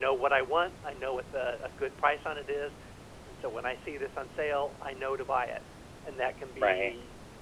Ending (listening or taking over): listening